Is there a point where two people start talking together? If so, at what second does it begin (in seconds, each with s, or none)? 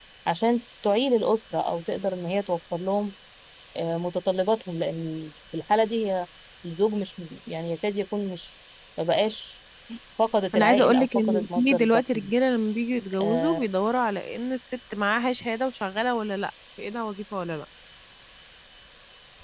10.5 s